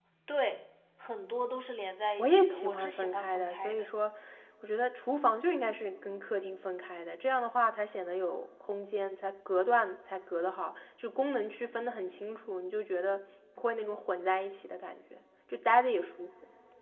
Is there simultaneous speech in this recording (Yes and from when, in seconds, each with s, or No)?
Yes, from 2.2 s